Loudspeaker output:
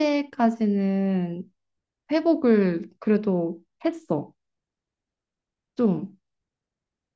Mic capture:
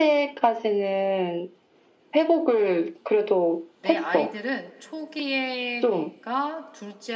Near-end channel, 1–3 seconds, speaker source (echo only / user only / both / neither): echo only